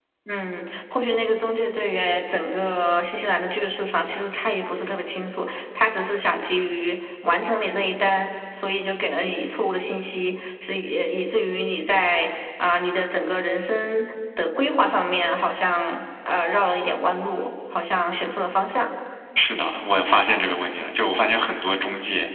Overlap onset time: none

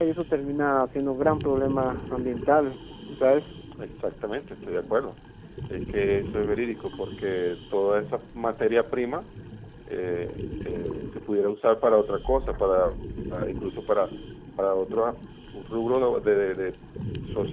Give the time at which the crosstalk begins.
none

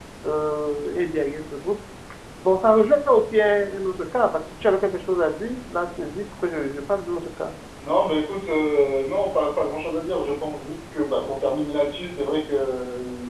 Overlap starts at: none

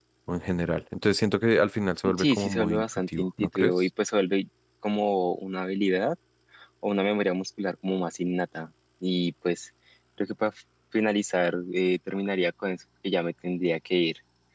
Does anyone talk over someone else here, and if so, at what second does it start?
2.2 s

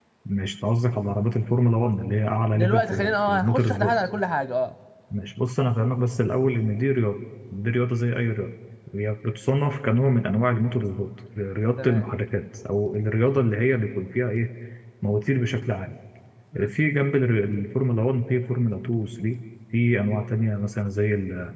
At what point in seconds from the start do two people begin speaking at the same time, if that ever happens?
2.5 s

